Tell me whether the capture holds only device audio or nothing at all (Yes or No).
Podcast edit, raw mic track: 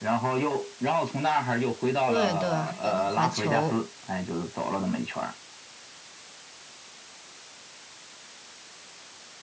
No